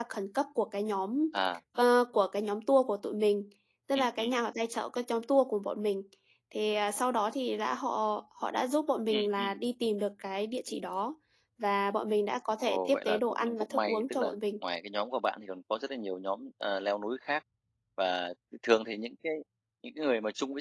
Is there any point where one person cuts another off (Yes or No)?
Yes